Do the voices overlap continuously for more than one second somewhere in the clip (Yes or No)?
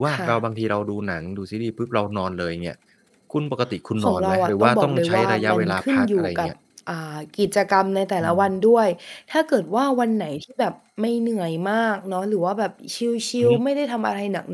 Yes